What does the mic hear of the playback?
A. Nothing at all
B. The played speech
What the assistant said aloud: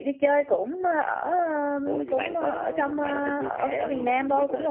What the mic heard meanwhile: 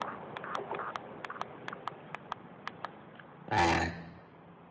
A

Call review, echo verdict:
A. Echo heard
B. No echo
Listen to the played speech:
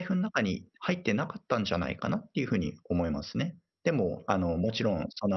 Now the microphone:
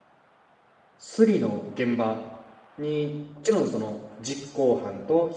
B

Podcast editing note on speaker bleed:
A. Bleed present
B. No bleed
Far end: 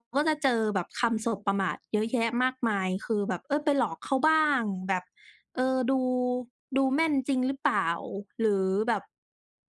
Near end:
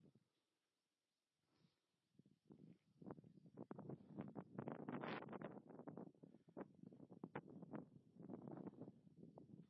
B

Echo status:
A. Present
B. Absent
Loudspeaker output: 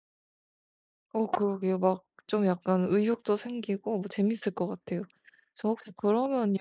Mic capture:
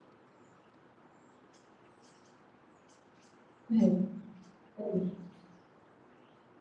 B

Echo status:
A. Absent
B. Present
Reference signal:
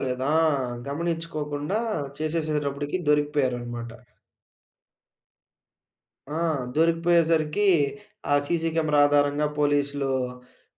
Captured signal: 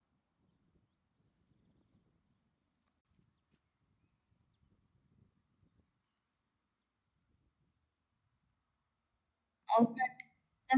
A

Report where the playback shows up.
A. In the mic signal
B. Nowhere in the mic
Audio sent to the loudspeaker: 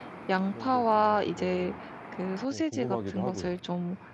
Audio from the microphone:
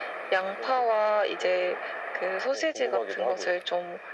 A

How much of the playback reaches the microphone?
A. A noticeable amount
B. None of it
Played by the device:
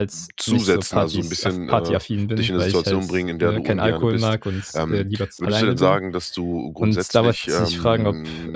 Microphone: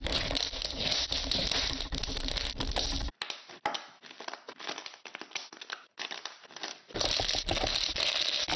B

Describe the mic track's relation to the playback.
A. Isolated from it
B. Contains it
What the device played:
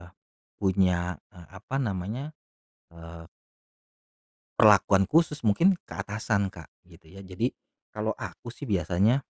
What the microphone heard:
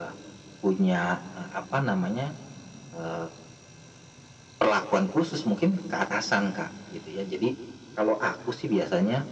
B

